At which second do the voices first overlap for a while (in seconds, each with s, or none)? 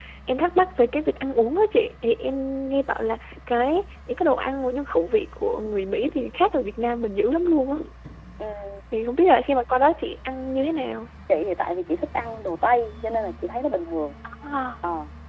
none